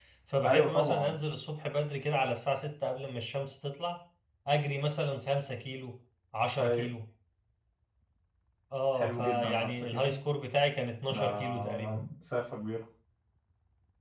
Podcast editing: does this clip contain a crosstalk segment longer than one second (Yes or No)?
Yes